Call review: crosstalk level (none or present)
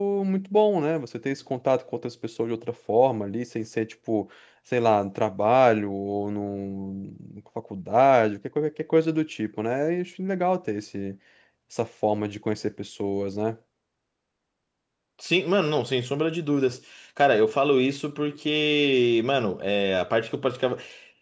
none